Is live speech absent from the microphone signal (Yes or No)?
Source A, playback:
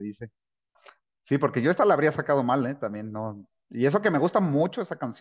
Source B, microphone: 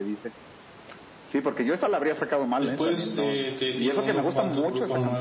No